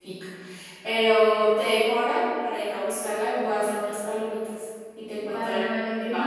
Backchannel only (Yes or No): No